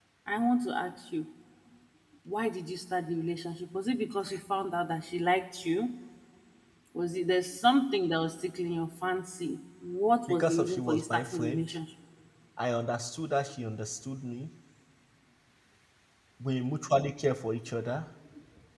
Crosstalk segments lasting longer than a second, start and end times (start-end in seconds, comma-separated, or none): 10.3-11.7